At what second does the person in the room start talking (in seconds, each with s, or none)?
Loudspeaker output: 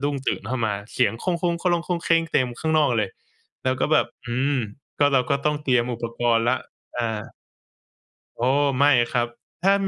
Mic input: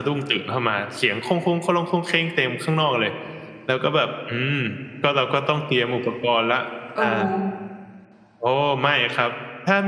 6.9 s